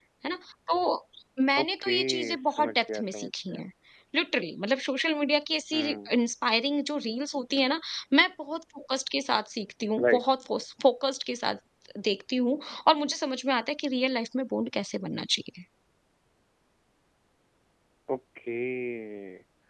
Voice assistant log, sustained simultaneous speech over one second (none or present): present